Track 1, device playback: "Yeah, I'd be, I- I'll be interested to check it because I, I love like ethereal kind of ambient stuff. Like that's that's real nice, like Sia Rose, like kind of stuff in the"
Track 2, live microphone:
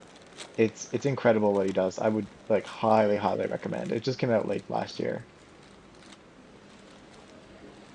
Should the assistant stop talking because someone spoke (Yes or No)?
Yes